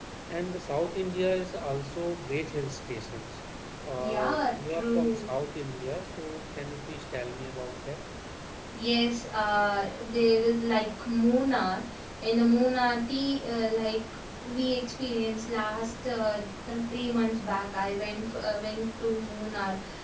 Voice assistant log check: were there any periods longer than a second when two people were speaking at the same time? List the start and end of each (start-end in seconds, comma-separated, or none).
4.0-5.3